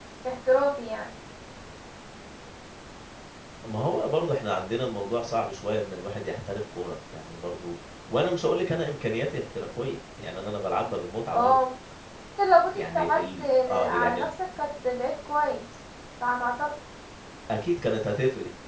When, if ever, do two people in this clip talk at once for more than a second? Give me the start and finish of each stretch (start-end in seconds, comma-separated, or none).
12.7-14.3